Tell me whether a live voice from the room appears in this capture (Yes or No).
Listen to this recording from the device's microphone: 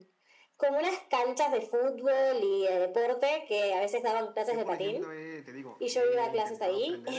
Yes